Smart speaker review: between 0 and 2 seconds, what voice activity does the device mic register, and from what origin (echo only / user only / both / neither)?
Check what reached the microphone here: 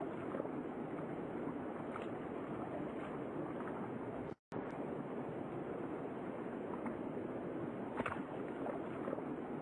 neither